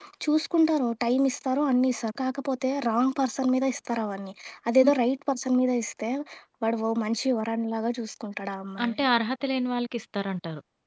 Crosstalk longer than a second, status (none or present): none